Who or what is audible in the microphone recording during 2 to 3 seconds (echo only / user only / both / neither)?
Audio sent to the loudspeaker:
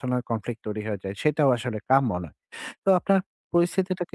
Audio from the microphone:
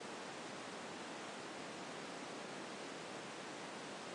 neither